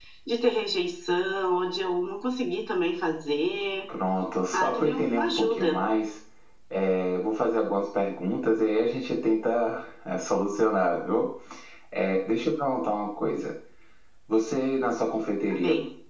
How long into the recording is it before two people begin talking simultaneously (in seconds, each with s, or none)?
4.5 s